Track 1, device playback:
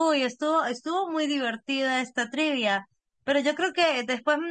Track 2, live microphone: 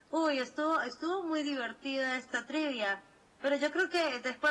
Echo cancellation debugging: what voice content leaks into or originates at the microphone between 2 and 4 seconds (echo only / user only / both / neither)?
echo only